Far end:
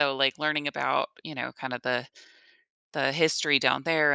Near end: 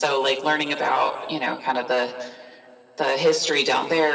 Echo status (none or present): present